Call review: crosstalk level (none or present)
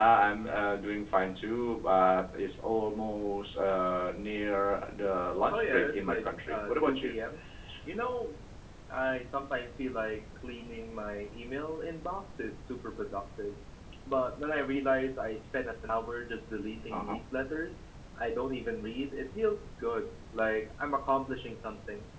present